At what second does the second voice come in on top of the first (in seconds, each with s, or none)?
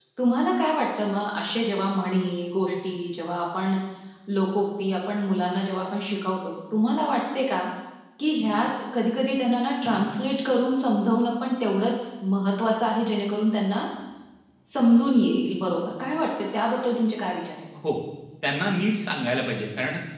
none